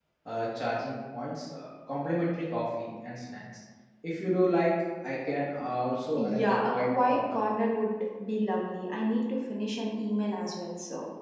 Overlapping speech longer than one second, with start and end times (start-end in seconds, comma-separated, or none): 6.2-7.4